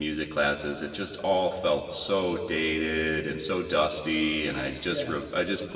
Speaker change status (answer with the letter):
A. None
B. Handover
A